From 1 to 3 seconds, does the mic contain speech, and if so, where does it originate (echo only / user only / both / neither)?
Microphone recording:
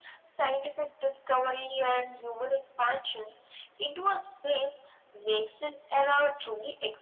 echo only